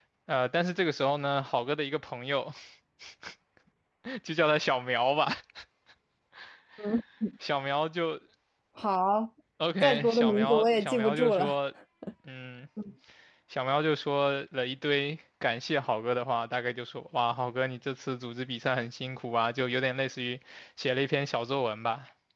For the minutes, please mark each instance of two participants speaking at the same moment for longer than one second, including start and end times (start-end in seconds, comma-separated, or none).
9.8-11.5